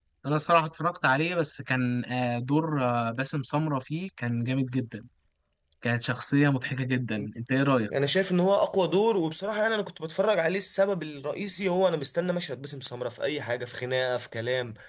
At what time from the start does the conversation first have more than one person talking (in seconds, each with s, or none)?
none